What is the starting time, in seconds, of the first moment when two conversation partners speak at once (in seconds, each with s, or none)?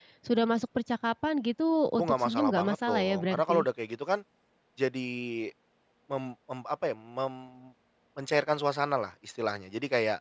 2.0 s